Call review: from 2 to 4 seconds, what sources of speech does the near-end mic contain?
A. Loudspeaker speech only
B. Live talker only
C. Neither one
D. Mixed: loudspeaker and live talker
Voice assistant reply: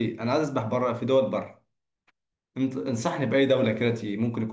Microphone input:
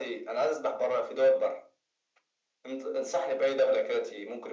A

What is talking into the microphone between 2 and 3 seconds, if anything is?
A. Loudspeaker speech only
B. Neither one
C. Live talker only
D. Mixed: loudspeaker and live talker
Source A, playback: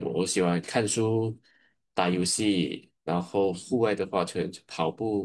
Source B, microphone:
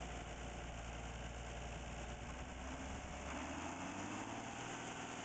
B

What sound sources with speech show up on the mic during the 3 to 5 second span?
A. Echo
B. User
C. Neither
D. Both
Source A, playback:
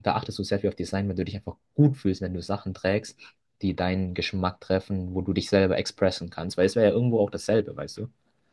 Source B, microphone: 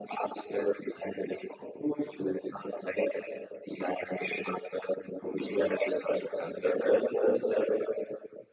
A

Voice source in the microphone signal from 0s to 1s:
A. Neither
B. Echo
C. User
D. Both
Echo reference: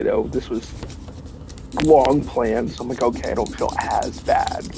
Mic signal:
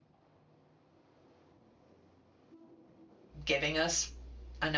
A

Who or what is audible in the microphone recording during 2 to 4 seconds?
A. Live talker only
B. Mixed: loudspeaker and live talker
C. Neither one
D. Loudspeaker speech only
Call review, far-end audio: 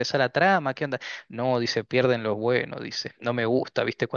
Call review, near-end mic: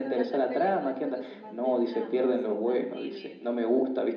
B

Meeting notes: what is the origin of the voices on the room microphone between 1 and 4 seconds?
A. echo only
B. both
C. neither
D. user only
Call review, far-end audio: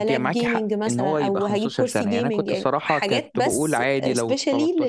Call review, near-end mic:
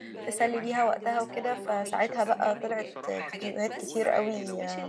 B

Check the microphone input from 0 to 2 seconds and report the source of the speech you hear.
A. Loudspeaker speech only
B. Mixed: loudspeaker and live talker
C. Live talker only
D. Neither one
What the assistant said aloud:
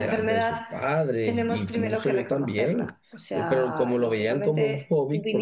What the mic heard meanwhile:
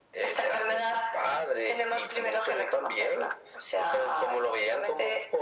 A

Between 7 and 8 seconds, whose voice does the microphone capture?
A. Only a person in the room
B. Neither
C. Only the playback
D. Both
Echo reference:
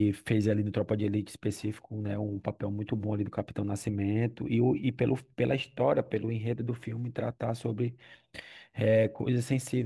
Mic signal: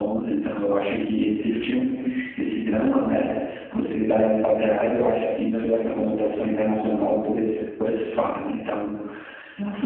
A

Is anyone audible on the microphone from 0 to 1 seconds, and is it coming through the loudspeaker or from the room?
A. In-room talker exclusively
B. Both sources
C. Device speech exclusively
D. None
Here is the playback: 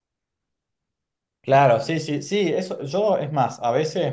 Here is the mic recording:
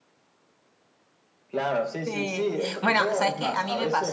D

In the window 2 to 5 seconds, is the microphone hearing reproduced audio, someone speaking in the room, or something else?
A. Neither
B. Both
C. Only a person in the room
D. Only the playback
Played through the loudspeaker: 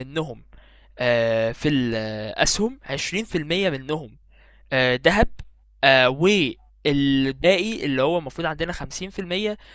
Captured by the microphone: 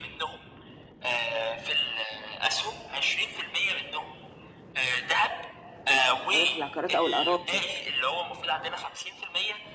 D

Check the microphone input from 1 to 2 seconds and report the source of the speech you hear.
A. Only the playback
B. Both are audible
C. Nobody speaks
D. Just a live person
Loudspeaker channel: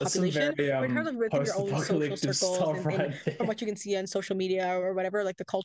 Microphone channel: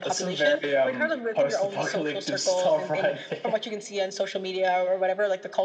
A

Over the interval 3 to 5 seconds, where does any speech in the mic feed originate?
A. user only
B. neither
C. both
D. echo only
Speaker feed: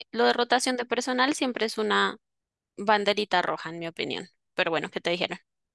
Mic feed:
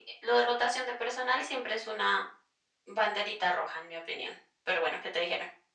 D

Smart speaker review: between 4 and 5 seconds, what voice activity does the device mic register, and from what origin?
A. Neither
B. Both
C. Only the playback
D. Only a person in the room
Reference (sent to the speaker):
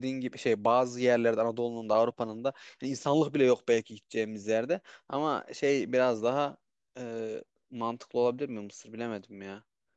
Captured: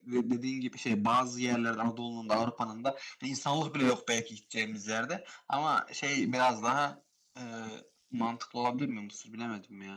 C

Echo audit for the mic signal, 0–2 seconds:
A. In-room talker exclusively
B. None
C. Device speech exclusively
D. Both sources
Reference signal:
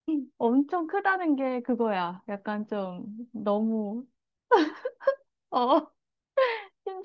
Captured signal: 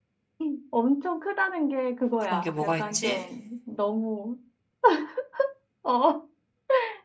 C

